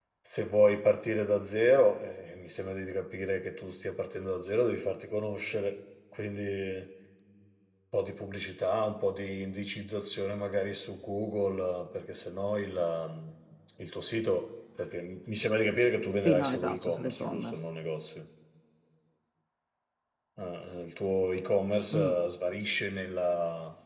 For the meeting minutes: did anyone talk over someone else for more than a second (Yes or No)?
Yes